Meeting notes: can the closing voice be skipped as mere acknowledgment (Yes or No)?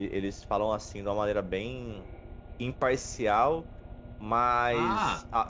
Yes